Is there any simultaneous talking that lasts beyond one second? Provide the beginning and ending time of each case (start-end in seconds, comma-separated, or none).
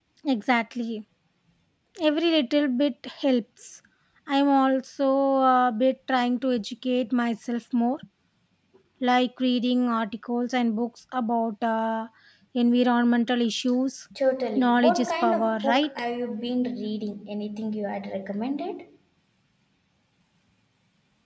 14.6-15.9